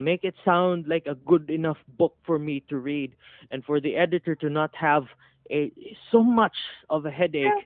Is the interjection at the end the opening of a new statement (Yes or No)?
Yes